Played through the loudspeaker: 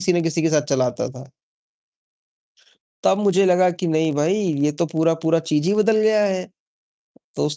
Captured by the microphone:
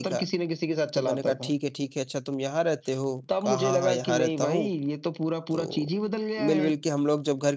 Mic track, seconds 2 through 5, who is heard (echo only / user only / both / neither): both